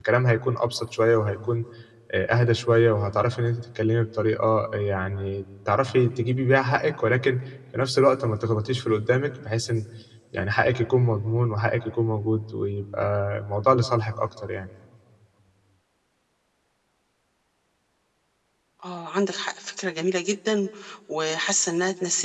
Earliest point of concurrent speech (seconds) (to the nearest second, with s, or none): none